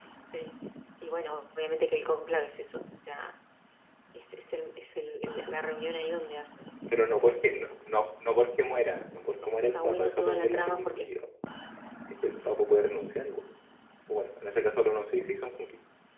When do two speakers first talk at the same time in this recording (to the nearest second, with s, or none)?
7 s